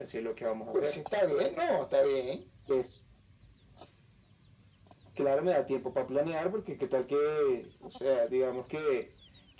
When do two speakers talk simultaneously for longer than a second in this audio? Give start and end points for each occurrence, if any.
none

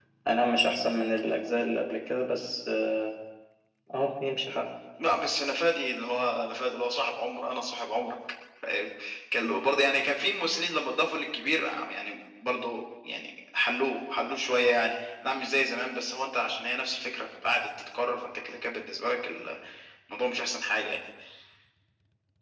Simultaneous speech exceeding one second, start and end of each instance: none

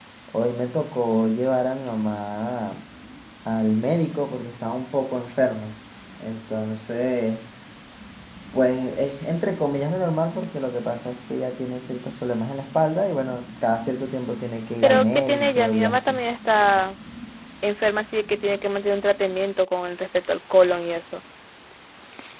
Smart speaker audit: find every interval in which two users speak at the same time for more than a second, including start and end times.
14.8-16.2

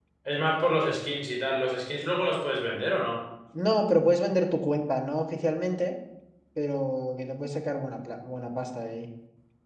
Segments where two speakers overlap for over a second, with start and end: none

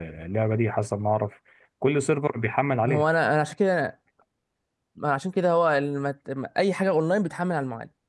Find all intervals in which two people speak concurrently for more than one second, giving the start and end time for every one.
none

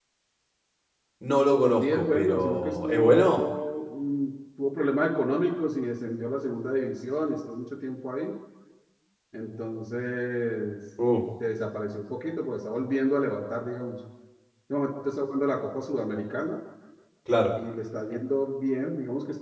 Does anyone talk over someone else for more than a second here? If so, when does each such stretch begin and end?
1.8-3.4

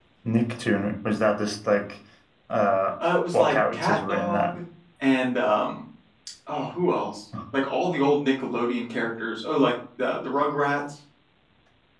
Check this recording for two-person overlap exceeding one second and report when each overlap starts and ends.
3.3-4.5

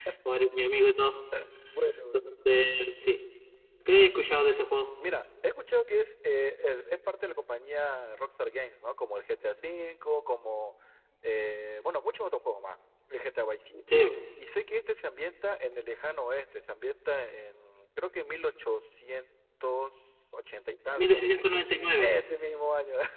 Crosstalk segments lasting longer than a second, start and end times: none

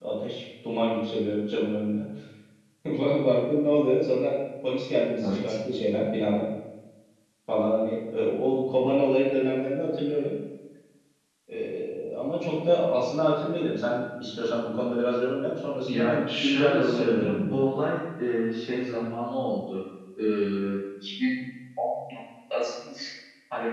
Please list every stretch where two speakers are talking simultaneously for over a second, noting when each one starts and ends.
15.8-17.6

